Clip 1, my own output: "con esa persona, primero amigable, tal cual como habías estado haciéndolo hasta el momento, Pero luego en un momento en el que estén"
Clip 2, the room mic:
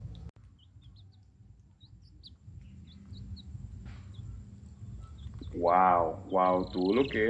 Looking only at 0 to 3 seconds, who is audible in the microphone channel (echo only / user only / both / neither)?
neither